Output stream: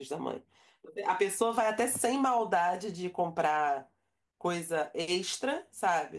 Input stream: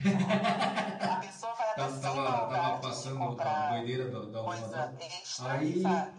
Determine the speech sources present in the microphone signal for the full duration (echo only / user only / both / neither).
both